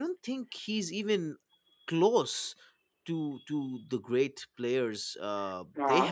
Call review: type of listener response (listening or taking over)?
taking over